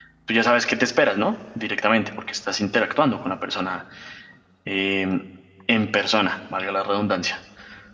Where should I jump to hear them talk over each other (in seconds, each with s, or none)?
none